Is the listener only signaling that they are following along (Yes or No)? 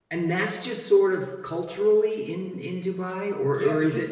No